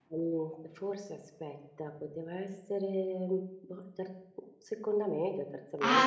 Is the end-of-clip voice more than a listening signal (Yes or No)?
Yes